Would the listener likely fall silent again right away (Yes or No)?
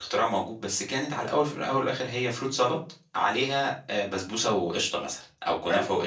Yes